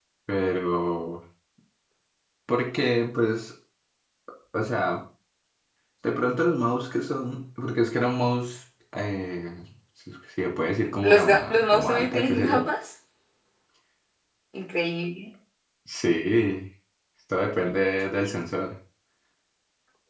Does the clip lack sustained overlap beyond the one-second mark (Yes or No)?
No